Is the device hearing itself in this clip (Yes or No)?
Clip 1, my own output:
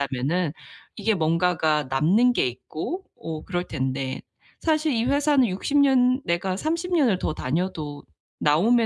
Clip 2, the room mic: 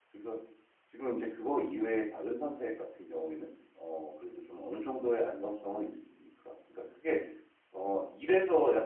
No